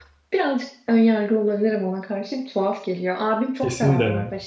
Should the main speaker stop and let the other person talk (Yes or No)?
No